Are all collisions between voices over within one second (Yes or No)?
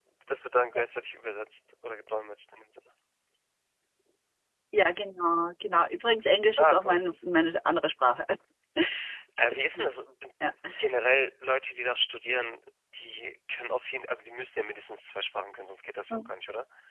Yes